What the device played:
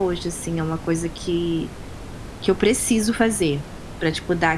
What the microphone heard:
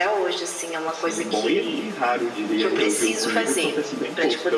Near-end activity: present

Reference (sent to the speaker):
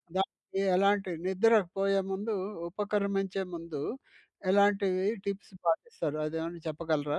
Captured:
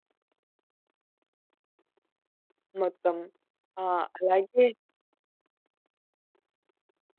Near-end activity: present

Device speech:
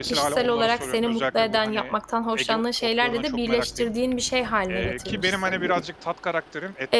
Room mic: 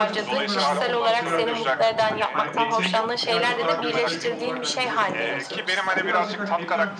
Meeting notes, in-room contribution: present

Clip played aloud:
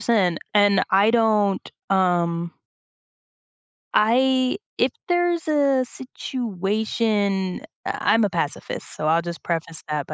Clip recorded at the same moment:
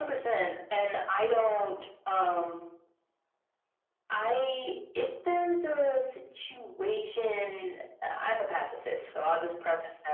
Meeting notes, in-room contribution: none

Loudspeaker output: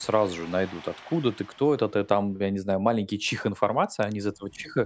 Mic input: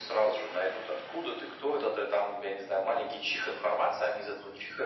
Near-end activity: none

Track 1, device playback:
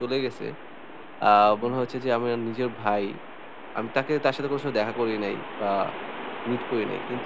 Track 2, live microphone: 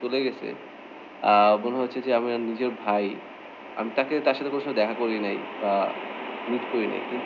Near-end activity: none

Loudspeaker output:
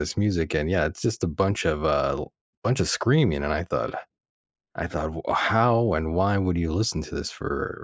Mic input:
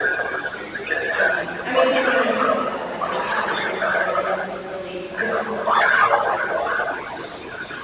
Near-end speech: present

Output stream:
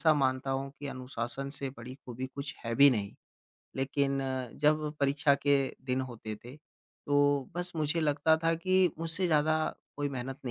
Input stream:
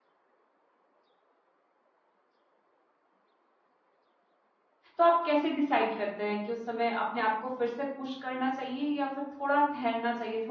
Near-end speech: present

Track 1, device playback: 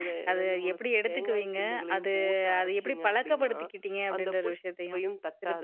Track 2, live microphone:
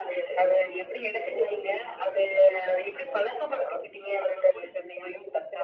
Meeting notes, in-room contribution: none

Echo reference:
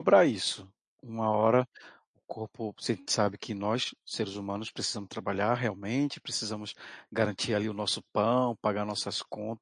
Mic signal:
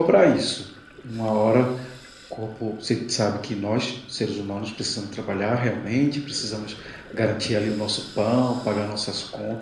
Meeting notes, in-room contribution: none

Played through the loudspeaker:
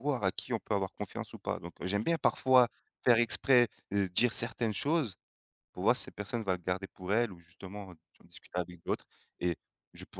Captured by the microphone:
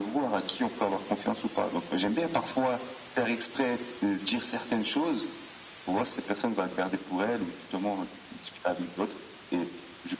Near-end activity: none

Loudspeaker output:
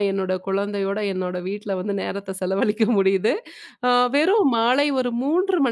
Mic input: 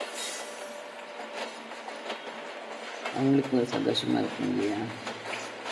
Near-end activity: present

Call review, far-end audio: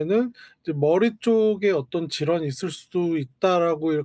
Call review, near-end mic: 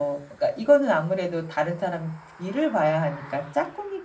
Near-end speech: present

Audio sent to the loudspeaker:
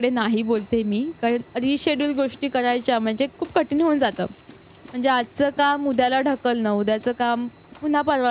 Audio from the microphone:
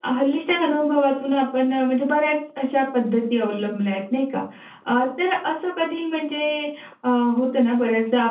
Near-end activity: present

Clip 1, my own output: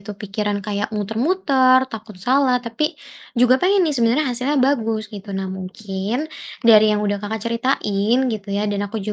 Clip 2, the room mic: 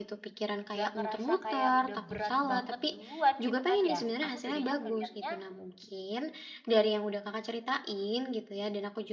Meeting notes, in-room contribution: present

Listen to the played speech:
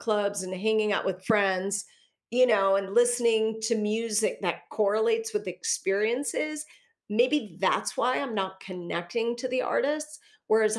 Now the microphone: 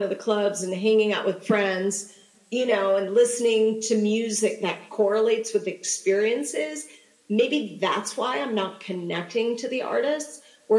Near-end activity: none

